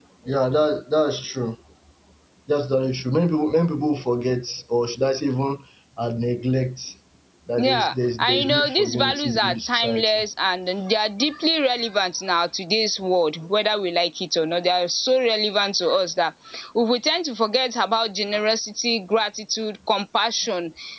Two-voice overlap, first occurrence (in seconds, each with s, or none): 7.6 s